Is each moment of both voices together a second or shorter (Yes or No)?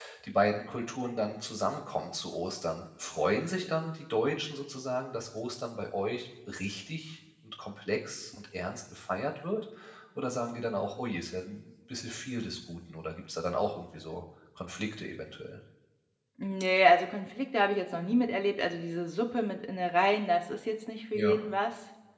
Yes